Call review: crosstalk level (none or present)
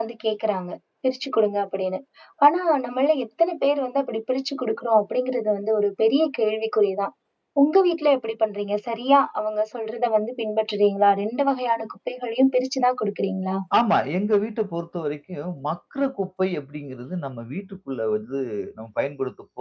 none